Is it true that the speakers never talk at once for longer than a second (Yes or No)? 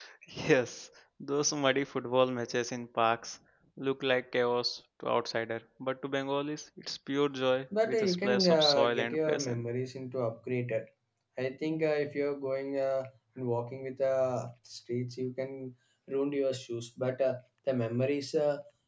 No